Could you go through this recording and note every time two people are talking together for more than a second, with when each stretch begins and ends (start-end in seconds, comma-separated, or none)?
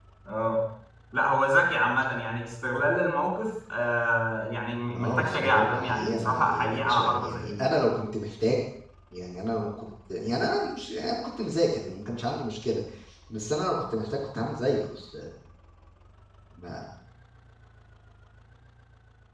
4.9-7.8